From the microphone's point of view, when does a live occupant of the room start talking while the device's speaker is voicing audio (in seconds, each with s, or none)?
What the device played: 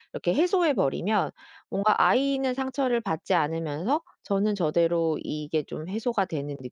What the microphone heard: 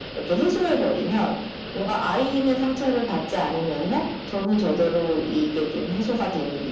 none